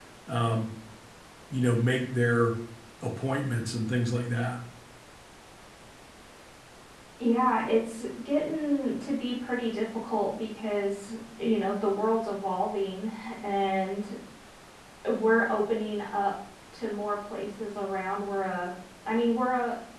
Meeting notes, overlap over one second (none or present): none